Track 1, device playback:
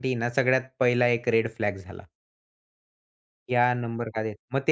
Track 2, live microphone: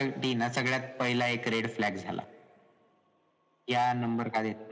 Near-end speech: none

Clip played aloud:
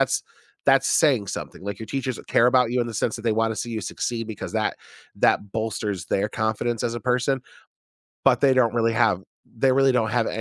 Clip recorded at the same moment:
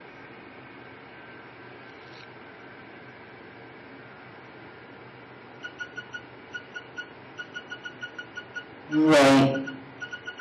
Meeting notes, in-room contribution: present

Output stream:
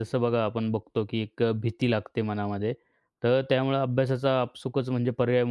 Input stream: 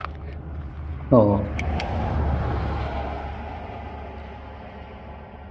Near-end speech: present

